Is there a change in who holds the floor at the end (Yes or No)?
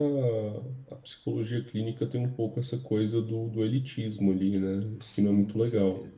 Yes